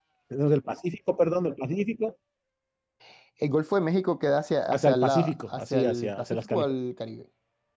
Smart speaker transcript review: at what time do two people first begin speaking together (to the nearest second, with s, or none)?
5 s